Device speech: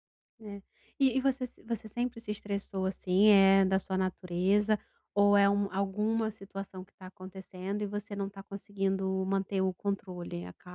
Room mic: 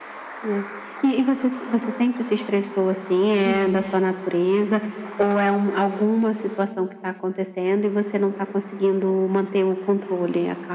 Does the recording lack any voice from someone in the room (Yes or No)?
No